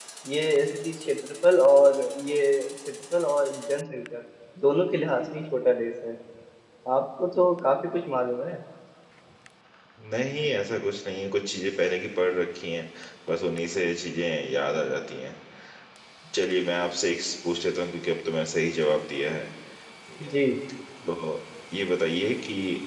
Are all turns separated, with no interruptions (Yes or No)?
Yes